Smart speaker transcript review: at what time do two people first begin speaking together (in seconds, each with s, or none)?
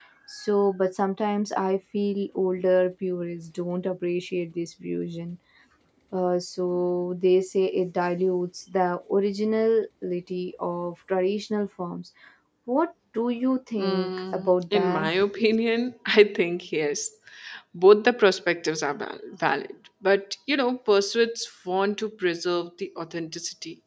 13.8 s